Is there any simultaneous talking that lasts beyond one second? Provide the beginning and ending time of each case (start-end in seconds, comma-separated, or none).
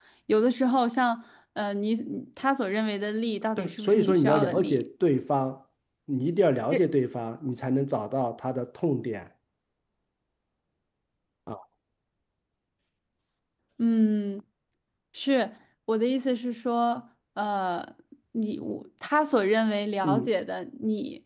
3.6-4.8